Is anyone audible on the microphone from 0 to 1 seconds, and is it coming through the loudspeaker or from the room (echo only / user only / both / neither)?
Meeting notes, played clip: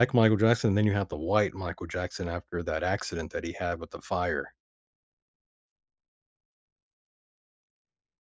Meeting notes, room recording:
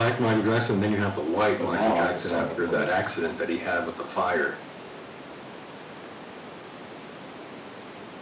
echo only